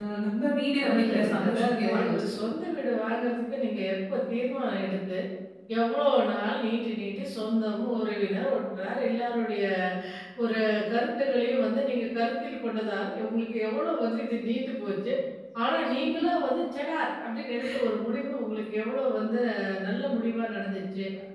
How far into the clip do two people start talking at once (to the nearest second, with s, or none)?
1 s